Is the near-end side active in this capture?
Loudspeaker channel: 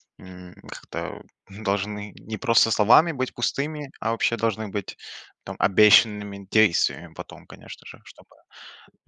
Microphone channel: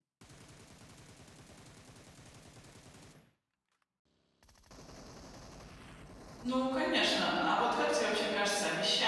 Yes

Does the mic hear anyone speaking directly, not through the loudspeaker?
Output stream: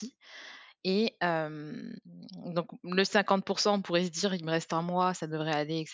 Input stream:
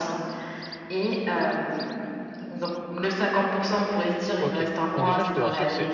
Yes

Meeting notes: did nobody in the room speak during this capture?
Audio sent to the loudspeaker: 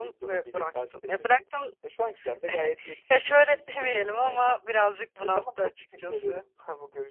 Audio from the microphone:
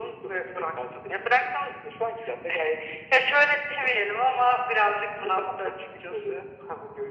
Yes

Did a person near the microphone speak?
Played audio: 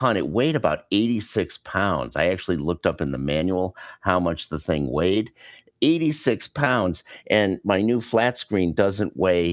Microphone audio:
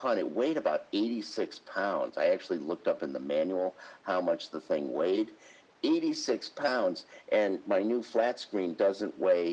No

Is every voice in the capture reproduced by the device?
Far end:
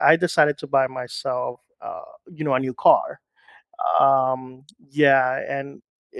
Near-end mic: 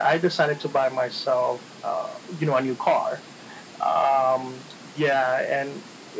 Yes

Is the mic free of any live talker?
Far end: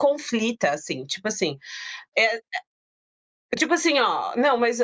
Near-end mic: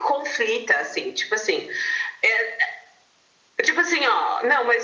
Yes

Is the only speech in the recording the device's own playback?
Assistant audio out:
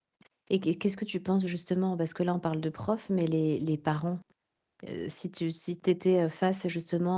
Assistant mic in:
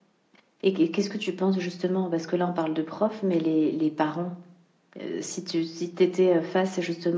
Yes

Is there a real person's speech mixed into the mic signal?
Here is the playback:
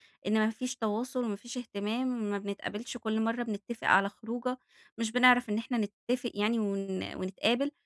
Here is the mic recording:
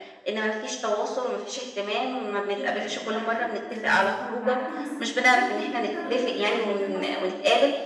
Yes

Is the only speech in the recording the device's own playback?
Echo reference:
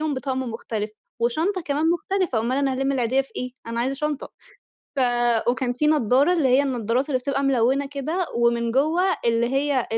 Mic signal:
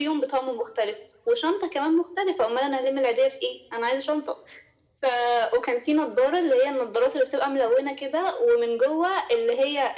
Yes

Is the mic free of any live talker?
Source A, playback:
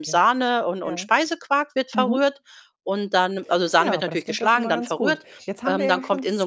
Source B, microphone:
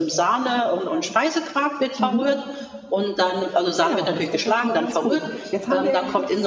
Yes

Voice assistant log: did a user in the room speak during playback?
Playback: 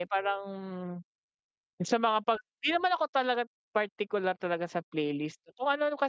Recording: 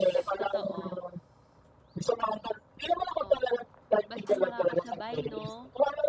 Yes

